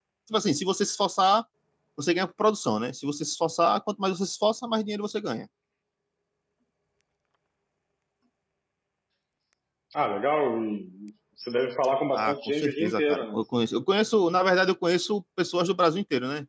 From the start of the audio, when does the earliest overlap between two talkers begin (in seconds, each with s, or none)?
12.1 s